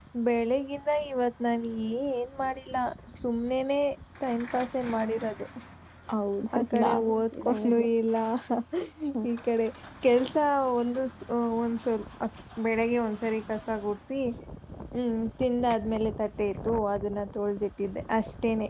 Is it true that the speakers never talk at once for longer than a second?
No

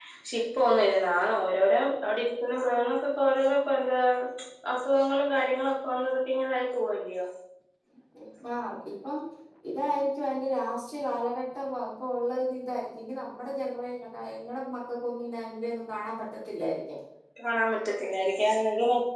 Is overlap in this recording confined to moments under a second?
Yes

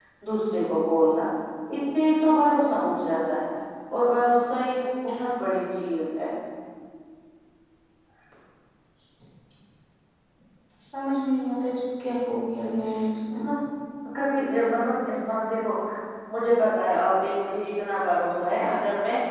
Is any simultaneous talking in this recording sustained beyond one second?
No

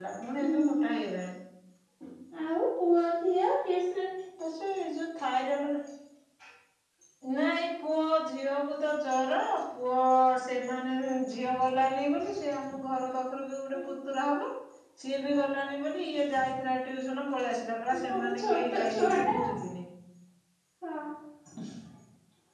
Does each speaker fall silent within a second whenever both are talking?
No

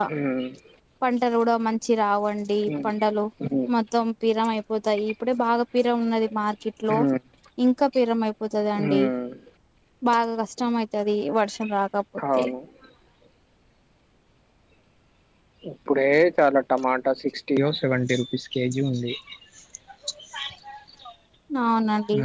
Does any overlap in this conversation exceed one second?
No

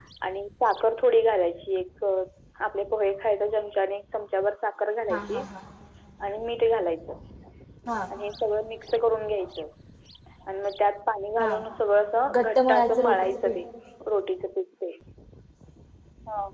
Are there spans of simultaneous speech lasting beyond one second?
Yes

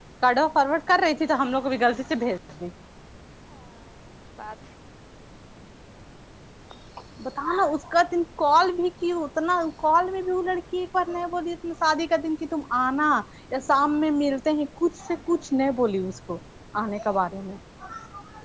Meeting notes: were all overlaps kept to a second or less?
Yes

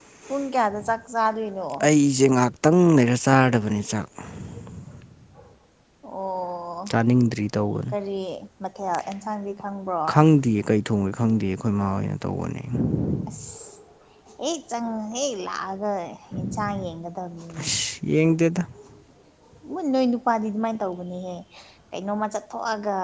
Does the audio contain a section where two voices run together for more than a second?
No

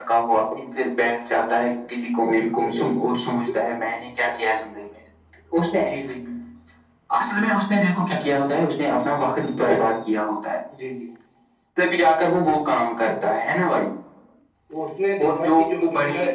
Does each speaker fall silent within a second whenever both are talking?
Yes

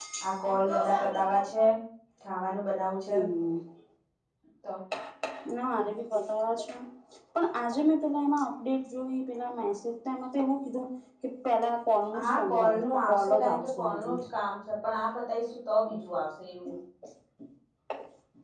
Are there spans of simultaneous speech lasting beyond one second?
Yes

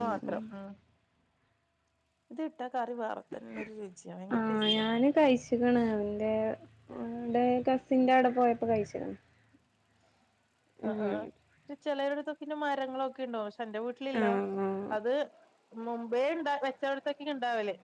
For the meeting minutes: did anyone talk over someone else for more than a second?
No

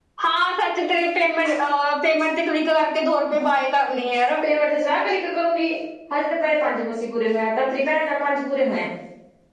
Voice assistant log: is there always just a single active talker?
Yes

